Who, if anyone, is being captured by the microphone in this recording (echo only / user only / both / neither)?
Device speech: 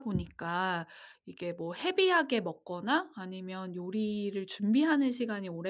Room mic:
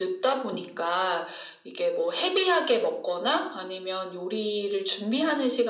echo only